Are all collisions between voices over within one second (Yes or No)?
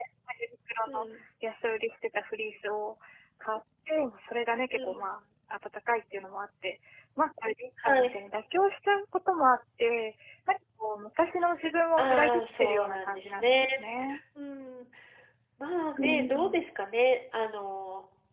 No